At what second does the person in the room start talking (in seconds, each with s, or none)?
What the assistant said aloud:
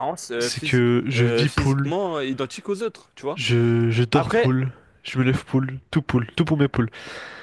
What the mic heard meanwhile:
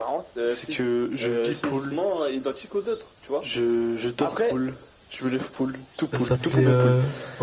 6.1 s